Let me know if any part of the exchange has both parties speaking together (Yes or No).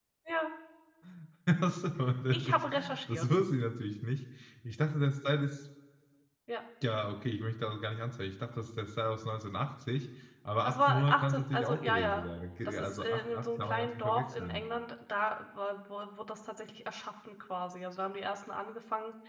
Yes